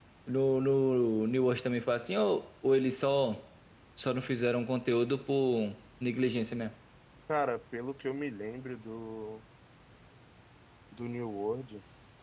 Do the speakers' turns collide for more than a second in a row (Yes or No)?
No